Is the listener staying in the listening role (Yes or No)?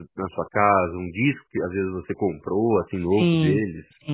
No